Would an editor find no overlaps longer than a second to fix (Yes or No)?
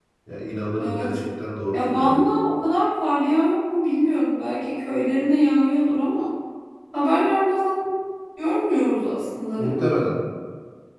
Yes